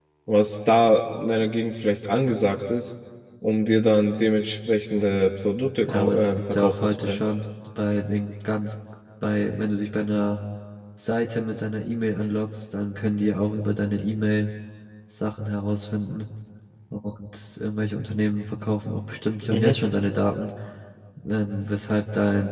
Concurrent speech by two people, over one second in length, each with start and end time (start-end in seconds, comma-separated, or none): 5.8-7.2